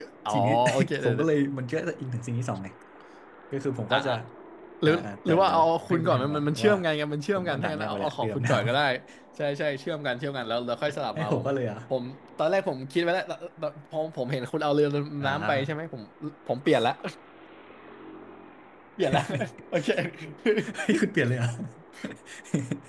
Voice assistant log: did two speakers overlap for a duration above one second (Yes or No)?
Yes